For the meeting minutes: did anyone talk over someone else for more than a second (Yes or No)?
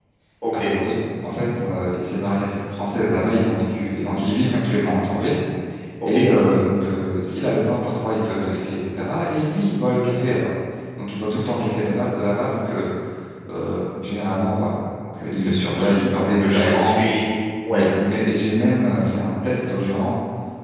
No